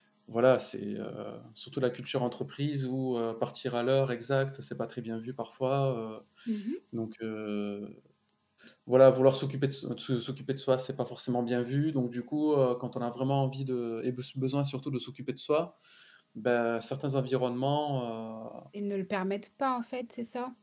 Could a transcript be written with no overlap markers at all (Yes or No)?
Yes